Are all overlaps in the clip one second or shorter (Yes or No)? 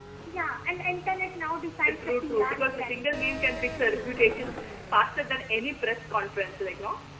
No